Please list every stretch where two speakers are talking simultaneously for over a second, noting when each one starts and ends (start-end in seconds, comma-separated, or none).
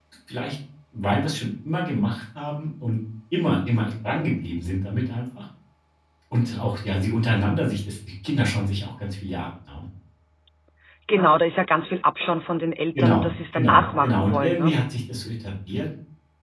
13.0-14.8